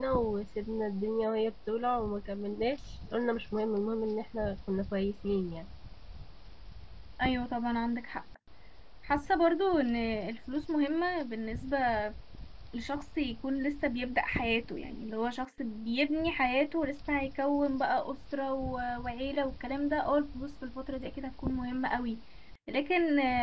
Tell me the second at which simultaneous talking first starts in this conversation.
none

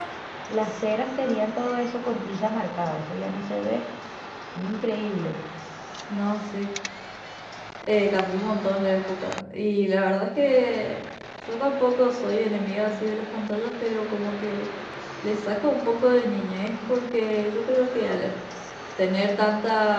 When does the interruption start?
none

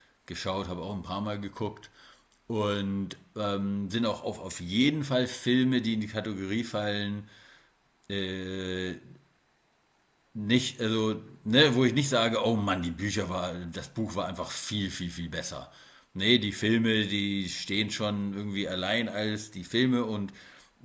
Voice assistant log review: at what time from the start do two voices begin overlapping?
none

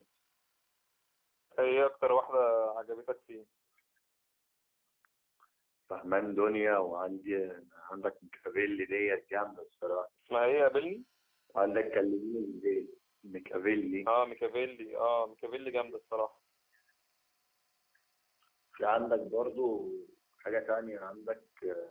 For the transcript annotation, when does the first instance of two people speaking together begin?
none

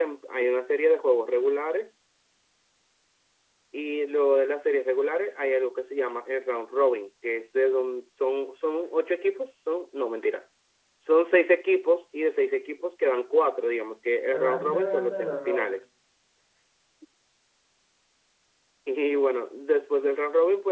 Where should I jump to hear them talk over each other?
14.3 s

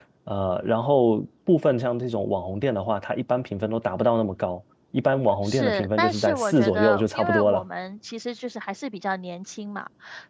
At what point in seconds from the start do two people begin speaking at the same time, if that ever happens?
5.4 s

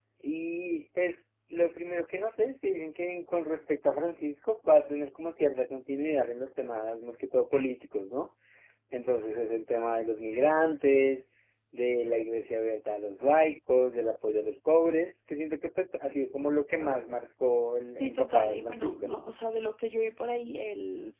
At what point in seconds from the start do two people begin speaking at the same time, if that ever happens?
18.0 s

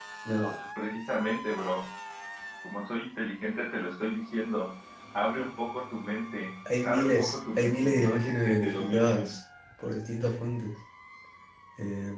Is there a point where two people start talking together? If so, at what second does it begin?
6.7 s

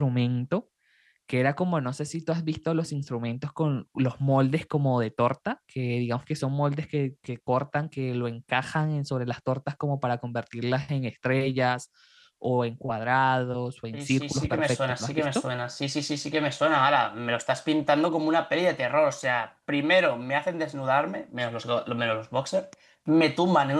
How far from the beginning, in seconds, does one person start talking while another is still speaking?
13.9 s

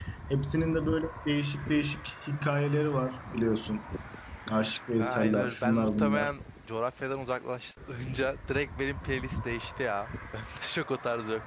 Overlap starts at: 5.0 s

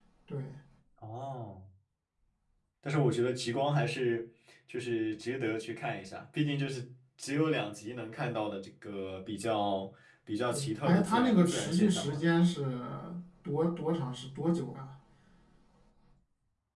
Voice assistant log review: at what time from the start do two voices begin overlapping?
10.5 s

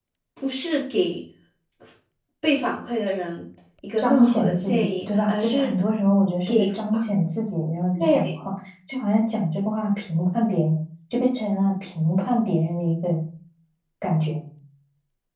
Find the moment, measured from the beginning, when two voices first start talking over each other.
4.0 s

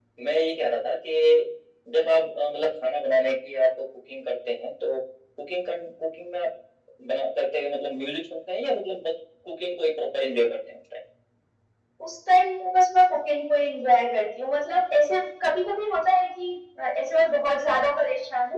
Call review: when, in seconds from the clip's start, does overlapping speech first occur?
none

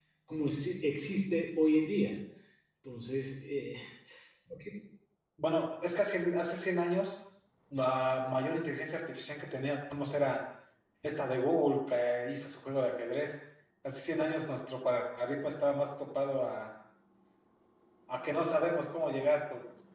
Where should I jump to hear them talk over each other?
none

